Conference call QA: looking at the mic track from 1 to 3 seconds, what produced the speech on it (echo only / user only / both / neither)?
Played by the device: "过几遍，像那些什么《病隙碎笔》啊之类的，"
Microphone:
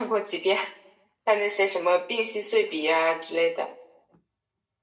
echo only